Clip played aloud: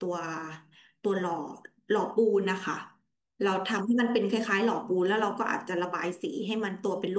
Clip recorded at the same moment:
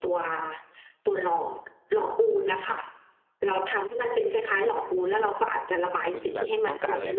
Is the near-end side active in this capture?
Yes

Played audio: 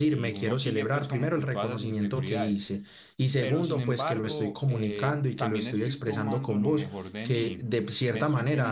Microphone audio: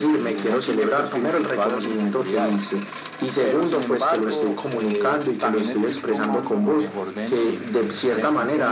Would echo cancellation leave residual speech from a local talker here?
No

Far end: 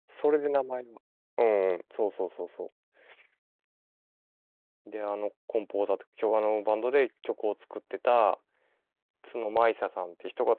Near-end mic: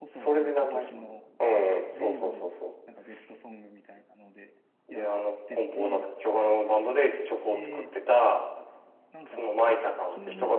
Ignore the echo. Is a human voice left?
Yes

